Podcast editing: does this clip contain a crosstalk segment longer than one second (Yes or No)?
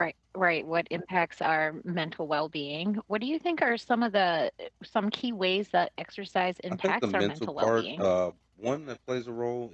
Yes